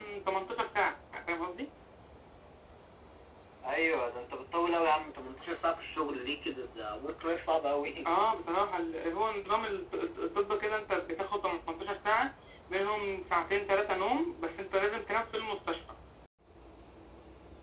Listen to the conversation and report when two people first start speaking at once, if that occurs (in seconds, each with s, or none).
none